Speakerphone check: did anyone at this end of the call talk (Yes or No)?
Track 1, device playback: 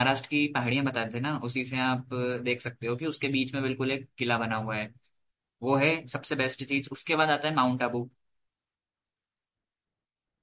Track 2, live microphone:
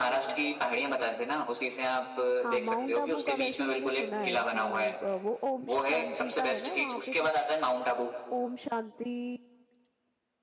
Yes